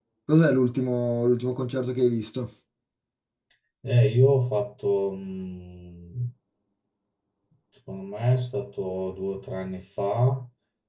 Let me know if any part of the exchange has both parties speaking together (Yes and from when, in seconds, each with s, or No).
No